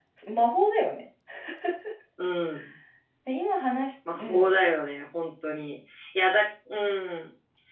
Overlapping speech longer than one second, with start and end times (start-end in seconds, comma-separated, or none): none